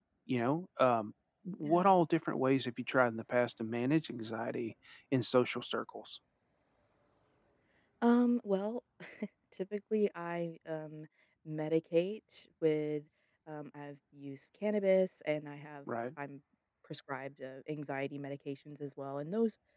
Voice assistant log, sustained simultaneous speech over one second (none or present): none